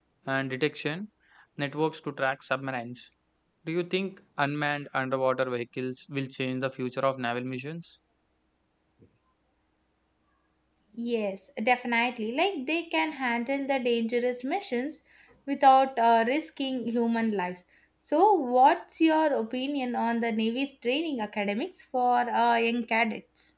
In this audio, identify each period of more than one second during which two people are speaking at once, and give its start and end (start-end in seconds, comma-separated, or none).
none